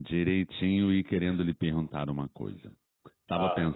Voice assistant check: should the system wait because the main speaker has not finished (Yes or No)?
Yes